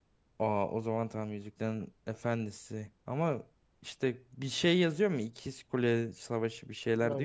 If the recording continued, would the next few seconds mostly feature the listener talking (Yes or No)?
Yes